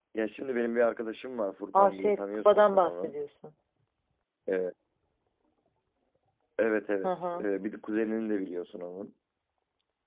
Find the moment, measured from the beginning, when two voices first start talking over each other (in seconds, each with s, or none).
1.7 s